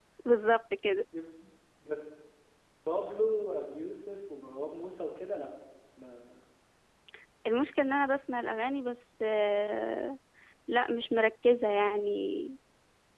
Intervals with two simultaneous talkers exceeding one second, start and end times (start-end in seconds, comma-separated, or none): none